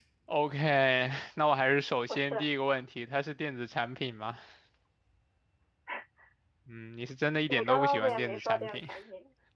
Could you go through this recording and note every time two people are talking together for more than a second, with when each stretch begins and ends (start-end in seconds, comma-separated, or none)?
7.5-8.9